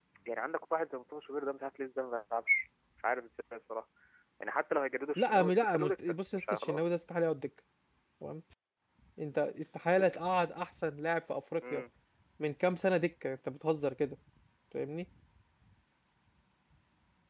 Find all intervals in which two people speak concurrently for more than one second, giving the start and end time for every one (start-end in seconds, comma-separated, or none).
5.2-6.8